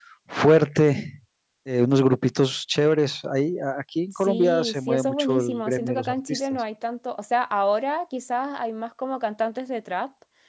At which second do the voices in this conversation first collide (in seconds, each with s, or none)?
4.1 s